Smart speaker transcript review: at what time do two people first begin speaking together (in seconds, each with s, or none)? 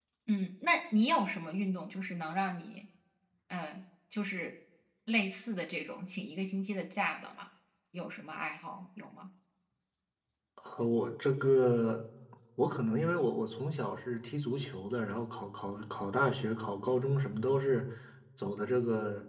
none